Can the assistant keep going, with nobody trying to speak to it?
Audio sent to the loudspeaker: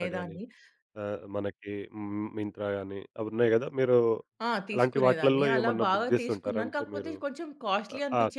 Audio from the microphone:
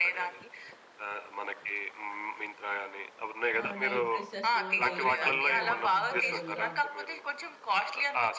No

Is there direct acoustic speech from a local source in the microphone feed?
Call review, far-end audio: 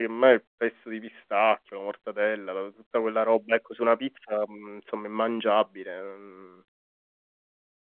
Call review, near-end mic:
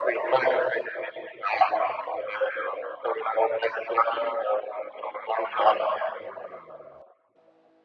No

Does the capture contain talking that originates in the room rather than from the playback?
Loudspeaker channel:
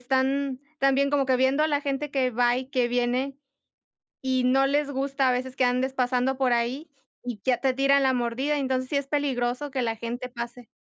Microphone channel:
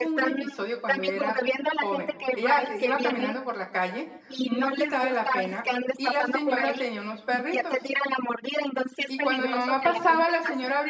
Yes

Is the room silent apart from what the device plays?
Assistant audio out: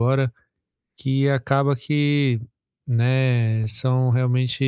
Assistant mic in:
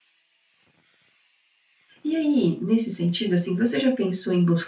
No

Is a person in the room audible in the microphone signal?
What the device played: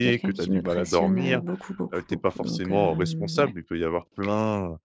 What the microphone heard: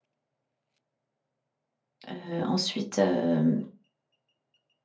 Yes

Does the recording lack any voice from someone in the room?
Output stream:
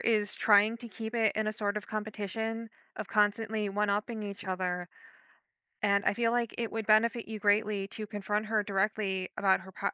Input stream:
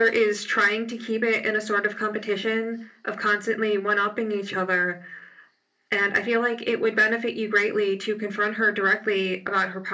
Yes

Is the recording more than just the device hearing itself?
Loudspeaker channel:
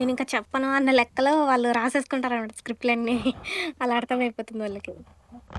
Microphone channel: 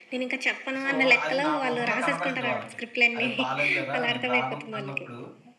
Yes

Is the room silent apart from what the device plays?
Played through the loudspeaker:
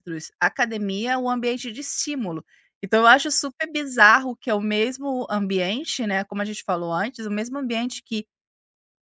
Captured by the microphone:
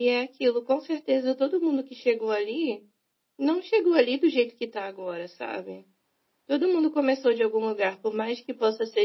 No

